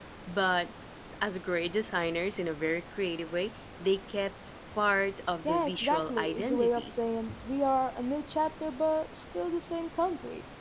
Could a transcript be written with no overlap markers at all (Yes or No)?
No